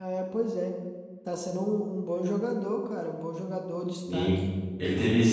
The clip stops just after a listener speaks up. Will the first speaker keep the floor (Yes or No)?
No